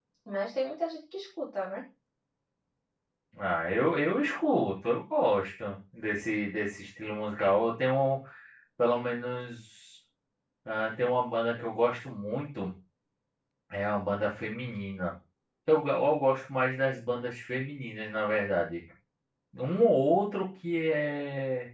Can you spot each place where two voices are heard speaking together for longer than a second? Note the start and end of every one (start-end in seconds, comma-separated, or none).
none